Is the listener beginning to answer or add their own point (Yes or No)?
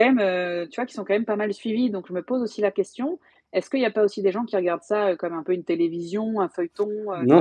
Yes